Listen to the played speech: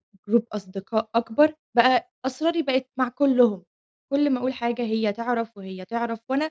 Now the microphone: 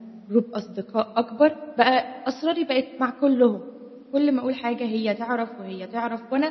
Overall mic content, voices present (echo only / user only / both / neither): echo only